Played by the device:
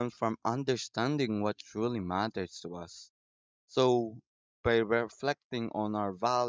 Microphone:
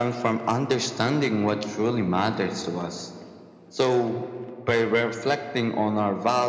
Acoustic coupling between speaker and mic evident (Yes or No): Yes